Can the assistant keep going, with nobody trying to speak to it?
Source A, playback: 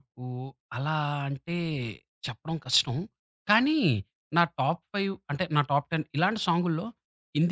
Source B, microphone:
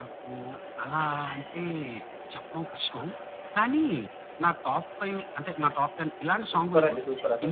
No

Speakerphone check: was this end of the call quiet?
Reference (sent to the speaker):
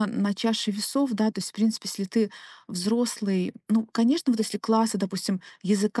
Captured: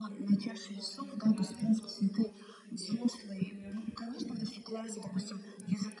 No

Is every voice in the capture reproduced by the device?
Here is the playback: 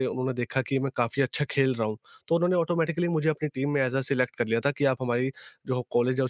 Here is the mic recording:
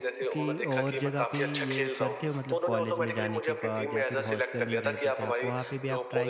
No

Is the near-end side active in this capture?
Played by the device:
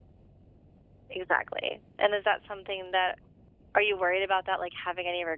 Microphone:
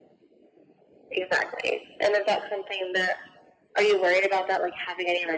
No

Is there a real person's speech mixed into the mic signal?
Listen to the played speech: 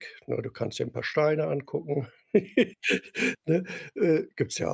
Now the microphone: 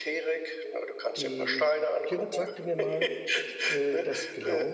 Yes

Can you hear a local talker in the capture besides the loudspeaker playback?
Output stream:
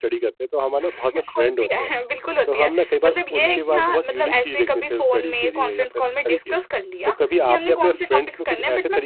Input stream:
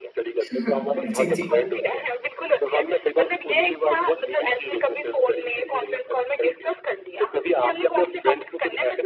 Yes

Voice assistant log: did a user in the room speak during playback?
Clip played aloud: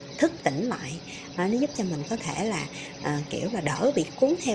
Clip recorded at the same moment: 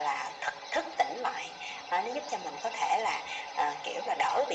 No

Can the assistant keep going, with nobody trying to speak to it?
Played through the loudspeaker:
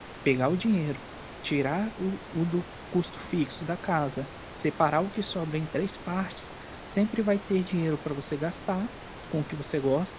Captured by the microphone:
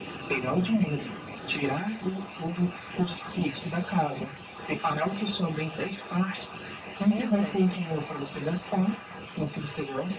No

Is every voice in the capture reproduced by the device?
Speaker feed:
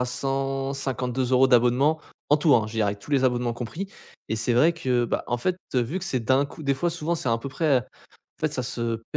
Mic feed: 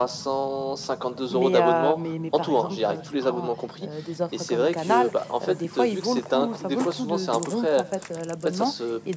No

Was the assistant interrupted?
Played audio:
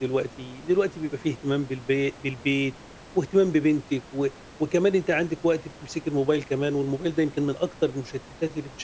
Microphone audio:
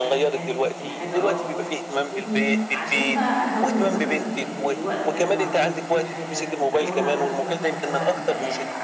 Yes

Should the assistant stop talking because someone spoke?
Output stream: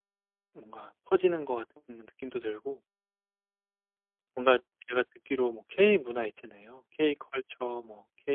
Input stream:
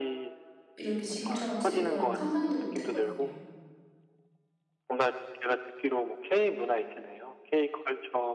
Yes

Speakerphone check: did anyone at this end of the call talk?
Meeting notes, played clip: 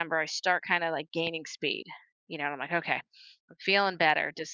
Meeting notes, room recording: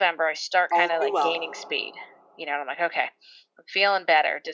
Yes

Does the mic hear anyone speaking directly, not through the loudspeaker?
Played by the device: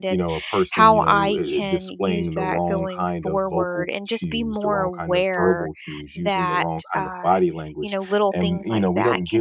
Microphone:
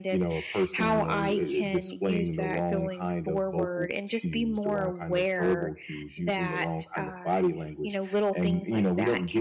No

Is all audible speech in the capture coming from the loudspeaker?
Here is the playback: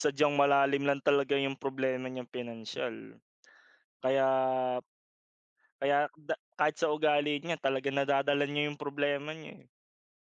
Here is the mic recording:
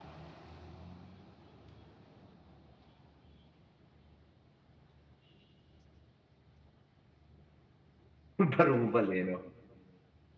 No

